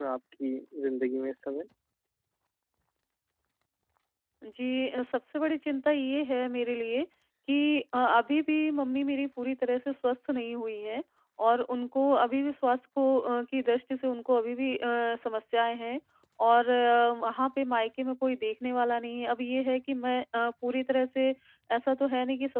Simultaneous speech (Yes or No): No